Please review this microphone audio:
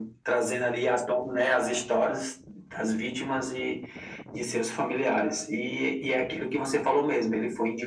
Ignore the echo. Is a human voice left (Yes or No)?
No